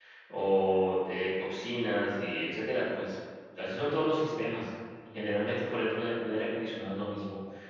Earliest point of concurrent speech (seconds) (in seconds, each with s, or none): none